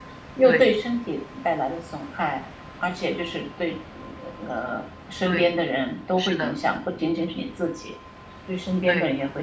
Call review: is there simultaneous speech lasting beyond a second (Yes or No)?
No